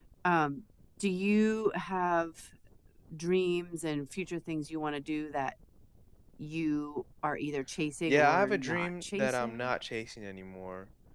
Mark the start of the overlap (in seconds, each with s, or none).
8.1 s